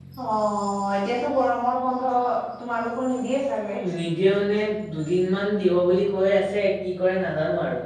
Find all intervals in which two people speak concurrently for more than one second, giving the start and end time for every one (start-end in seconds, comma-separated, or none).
none